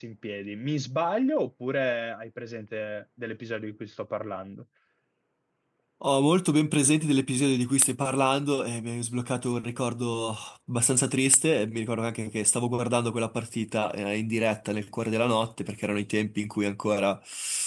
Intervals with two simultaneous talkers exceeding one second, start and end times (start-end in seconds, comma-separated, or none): none